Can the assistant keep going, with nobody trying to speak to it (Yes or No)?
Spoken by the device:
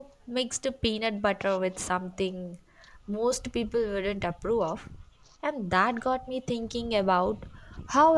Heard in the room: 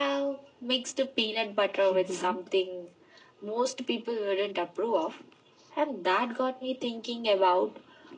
No